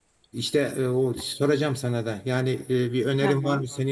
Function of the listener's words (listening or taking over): listening